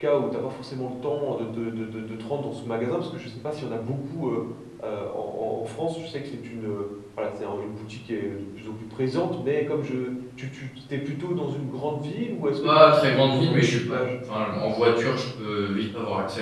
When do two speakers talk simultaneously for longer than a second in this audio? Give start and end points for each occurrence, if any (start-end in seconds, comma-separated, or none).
12.6-14.0